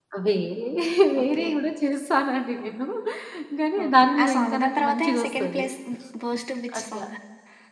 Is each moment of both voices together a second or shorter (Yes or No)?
No